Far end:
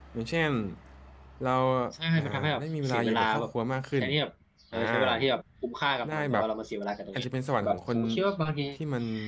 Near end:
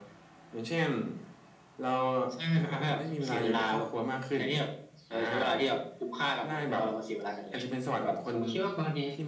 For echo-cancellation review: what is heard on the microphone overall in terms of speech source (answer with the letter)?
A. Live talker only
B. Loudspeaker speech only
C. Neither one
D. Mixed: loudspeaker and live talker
B